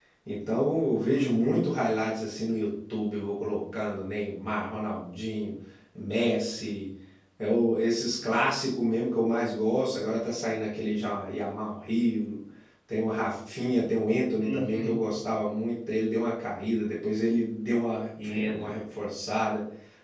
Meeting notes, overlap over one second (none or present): none